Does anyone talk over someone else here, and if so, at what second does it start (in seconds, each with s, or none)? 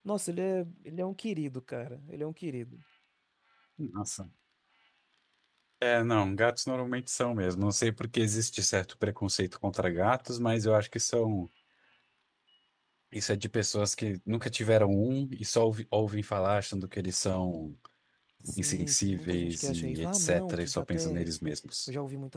18.6 s